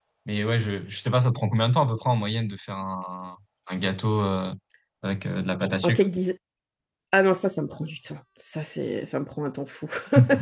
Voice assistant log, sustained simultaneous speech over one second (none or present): none